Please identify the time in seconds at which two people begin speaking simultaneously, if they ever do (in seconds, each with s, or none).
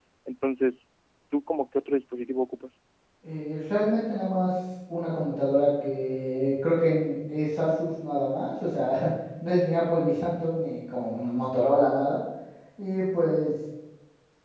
none